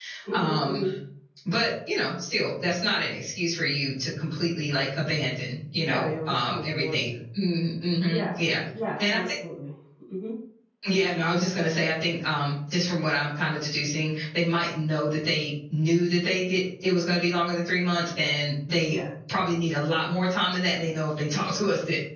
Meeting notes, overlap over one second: present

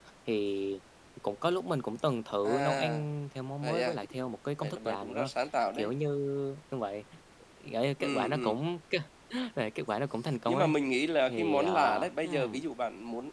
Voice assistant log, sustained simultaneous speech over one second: present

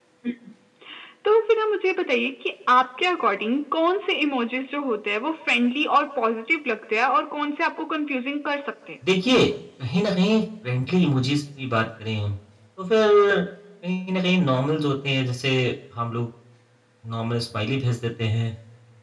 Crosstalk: none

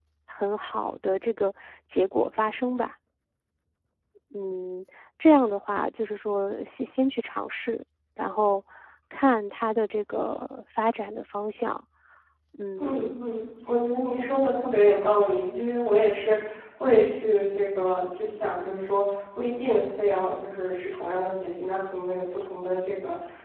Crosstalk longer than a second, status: none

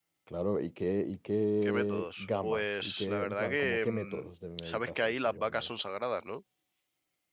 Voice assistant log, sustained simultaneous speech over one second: present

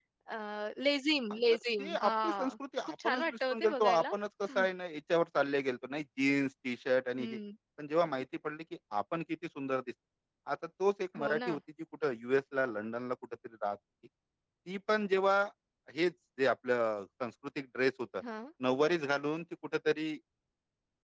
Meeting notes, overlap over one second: present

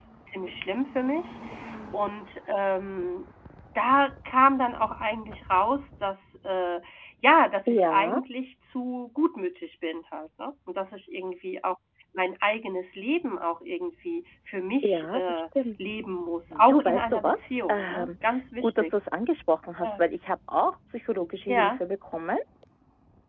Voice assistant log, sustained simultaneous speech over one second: present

